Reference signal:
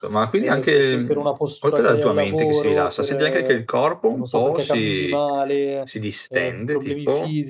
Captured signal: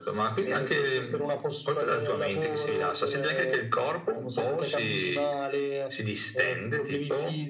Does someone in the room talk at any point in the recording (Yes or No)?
No